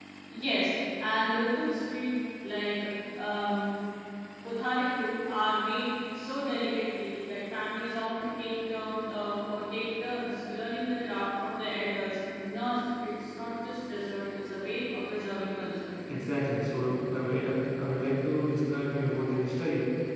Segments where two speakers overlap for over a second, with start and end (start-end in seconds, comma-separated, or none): none